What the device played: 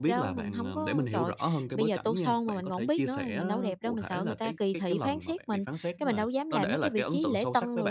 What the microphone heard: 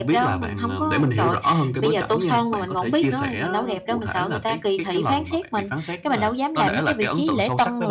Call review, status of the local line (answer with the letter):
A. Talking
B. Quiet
B